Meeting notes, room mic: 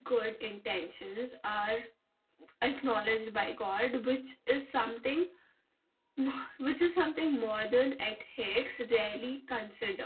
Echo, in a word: none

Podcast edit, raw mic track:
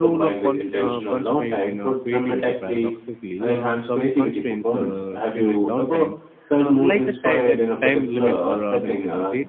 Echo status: present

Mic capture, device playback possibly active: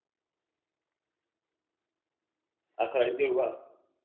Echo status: none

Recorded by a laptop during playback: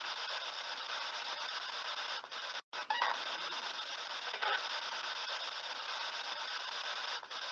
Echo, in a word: none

